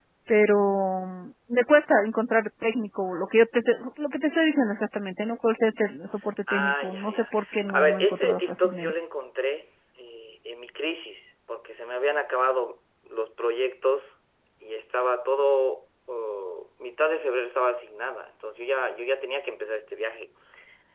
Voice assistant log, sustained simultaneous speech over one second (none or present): present